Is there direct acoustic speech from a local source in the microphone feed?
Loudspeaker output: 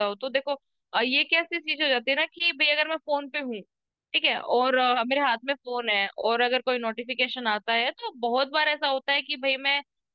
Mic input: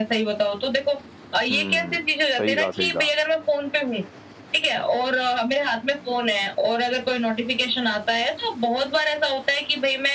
Yes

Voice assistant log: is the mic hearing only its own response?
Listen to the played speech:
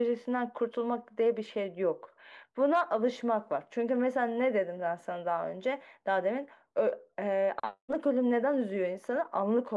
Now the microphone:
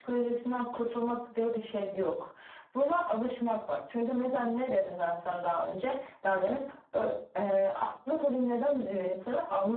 Yes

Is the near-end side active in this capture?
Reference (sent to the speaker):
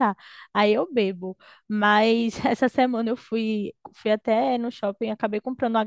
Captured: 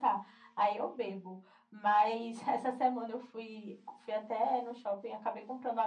No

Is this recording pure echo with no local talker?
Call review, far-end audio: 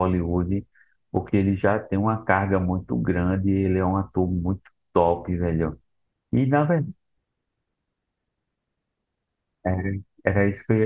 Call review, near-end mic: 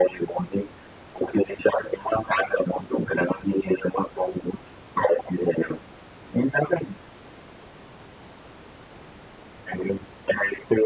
Yes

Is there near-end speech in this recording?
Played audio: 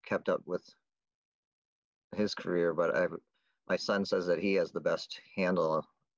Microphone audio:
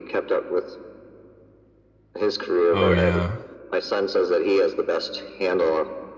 Yes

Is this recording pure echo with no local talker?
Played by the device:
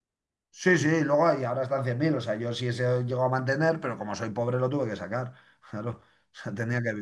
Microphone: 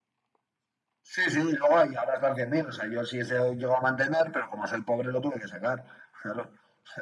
Yes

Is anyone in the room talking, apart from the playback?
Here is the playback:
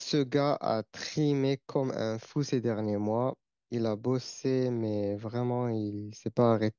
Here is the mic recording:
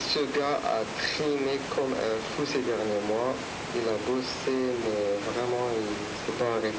No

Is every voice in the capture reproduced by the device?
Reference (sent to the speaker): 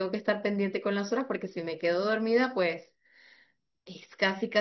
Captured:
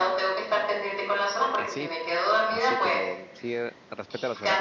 No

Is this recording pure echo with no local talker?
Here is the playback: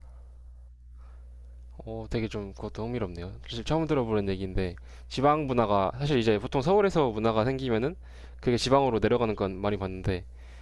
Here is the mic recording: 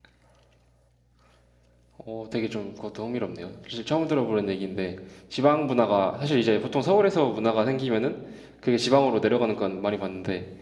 Yes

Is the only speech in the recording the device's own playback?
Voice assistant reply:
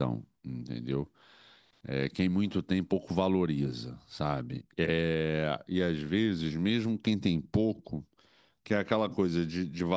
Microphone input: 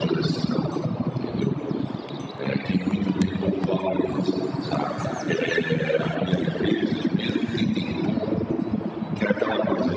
Yes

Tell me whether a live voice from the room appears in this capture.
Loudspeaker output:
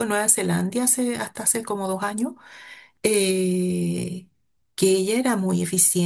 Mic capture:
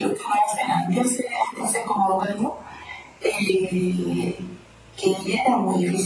No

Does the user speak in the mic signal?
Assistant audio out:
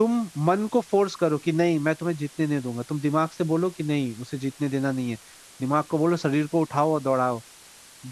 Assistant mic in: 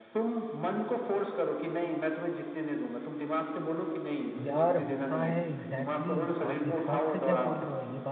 Yes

